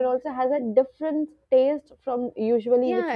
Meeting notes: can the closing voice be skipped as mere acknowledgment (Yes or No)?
No